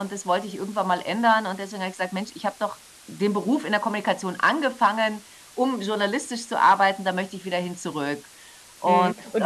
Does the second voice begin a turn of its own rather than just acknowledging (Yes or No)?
Yes